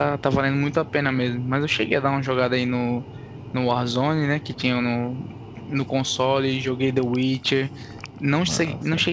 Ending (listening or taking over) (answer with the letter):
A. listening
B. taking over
A